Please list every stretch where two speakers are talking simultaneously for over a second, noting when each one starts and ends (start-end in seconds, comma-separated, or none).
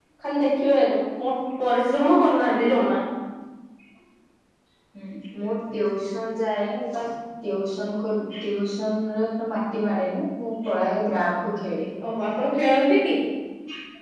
none